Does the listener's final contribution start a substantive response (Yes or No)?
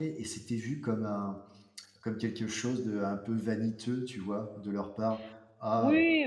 Yes